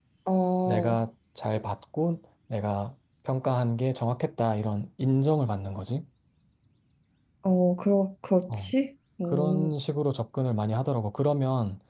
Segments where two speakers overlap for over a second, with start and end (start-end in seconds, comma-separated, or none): none